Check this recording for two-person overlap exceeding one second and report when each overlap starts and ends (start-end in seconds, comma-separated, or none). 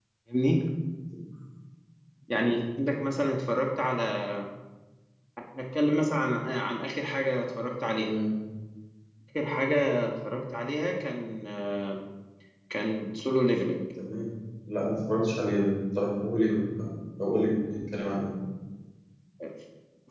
none